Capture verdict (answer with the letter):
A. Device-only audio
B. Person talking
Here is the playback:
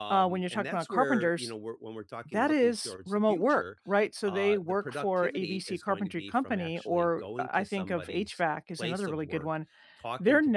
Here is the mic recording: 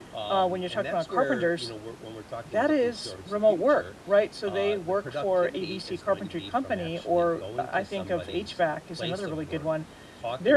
A